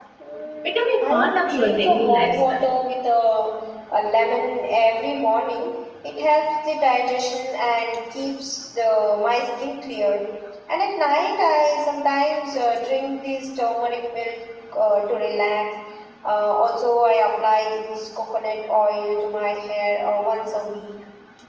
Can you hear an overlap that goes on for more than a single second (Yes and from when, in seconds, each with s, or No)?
Yes, from 0.6 s